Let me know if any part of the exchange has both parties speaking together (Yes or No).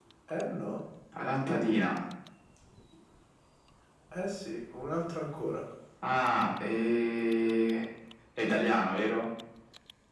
No